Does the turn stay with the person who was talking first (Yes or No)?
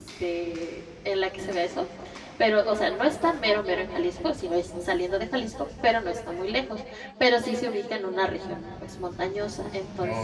Yes